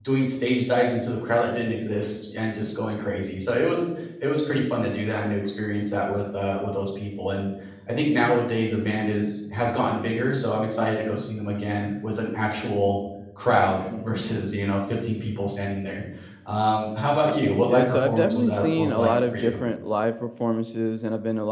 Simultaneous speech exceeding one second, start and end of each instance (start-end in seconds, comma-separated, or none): 17.7-19.5